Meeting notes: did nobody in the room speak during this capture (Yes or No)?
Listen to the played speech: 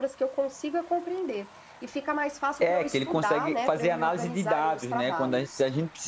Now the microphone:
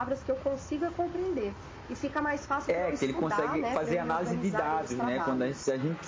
Yes